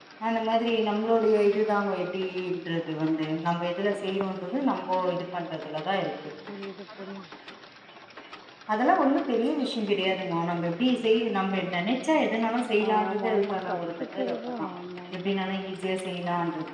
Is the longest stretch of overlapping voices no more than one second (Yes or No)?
No